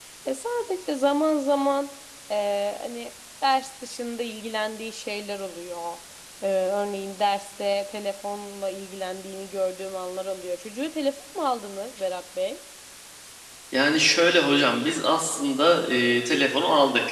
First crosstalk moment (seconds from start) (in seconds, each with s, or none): none